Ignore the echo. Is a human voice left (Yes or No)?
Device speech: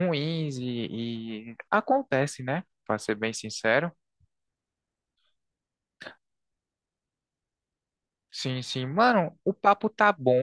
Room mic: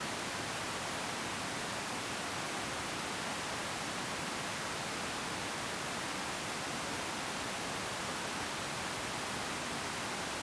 No